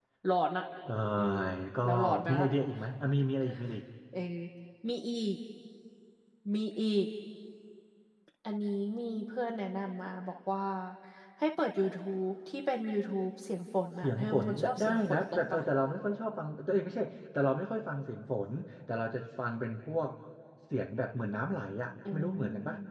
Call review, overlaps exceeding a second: present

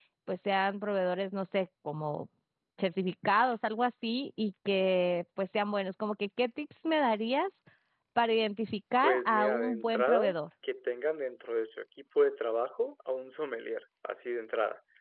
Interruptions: present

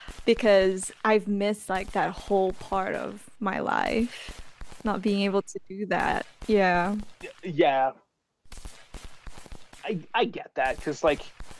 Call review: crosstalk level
none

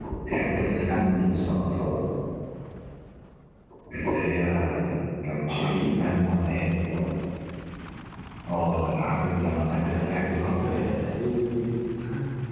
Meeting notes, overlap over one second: present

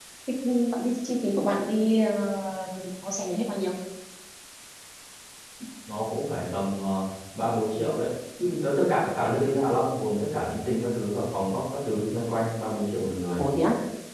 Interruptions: none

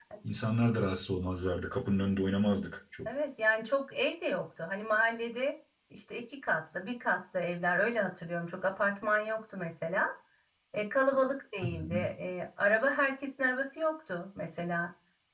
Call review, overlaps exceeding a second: none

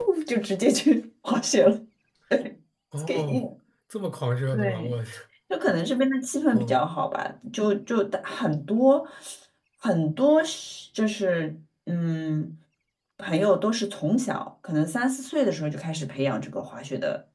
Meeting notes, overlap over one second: none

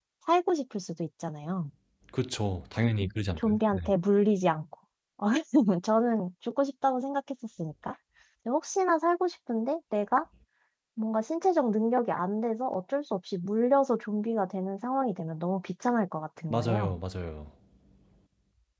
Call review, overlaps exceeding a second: none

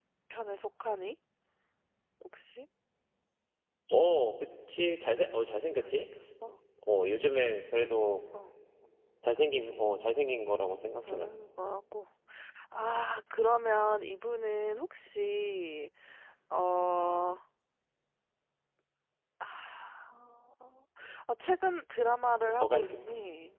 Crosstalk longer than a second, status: none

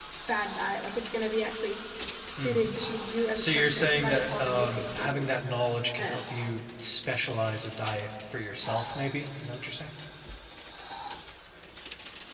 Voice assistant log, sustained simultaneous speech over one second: present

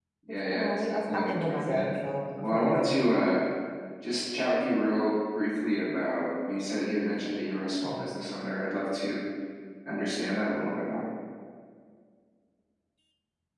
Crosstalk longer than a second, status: present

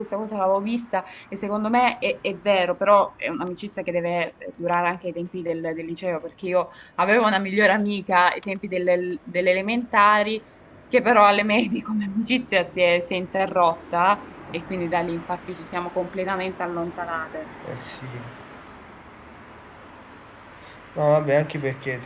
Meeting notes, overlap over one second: none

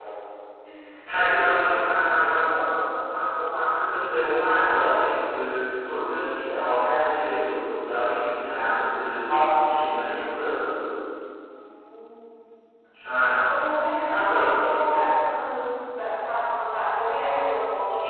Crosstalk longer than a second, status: none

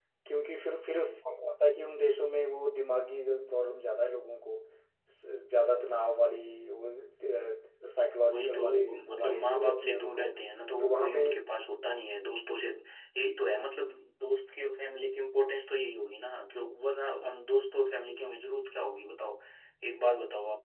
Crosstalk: present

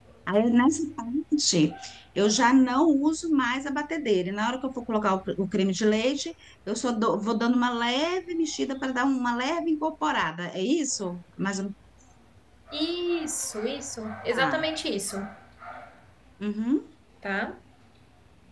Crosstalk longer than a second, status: none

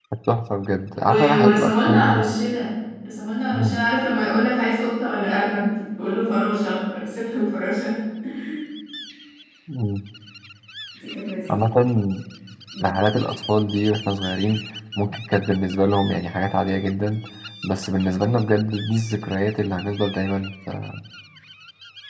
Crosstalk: present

